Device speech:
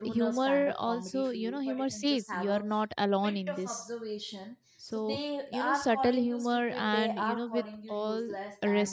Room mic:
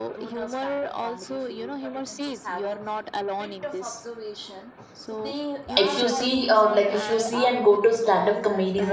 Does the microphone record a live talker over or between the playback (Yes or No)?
Yes